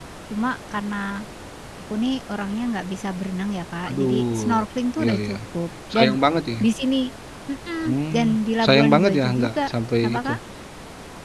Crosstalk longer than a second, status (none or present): present